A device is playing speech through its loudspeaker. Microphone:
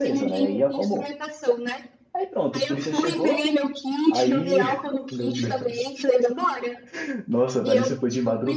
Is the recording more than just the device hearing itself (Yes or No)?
Yes